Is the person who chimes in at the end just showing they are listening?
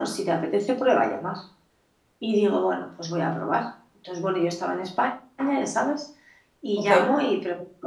Yes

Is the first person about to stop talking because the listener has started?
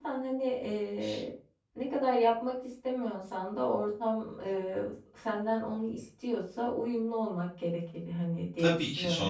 Yes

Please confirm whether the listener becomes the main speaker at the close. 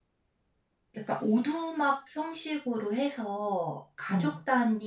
No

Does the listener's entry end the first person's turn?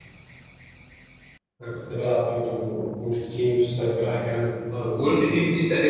Yes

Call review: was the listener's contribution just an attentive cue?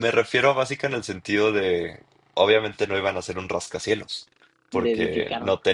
Yes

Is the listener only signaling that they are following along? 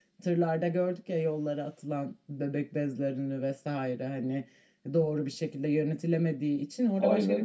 No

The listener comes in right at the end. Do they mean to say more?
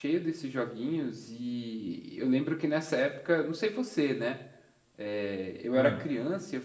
No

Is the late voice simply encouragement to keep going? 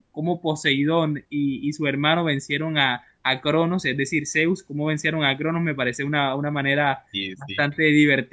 Yes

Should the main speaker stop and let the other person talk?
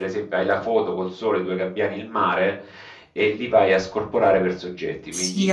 Yes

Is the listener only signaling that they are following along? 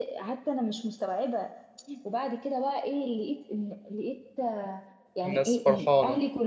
Yes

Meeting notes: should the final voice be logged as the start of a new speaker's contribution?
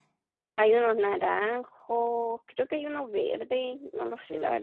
Yes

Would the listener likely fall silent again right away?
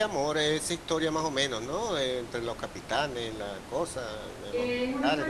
No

